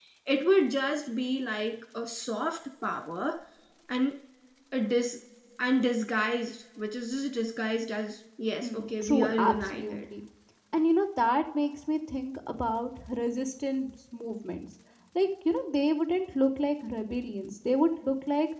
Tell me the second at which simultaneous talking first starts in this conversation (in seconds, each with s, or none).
8.6 s